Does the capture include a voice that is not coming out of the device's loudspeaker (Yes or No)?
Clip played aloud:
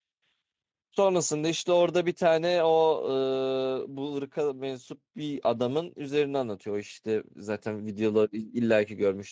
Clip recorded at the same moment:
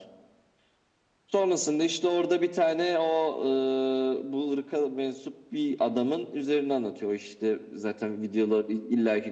No